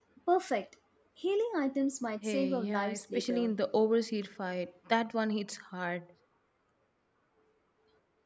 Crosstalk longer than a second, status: present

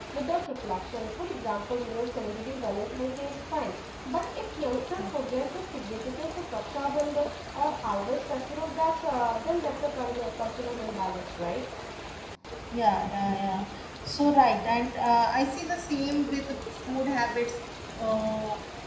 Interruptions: none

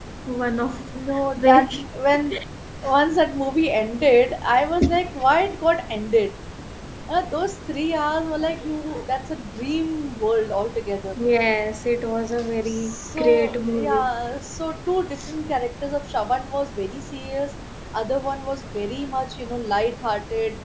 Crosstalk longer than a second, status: present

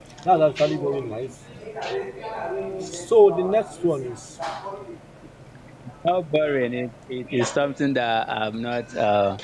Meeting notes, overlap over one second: none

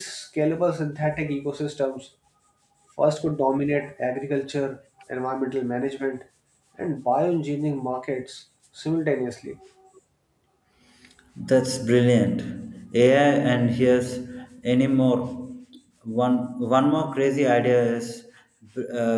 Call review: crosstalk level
none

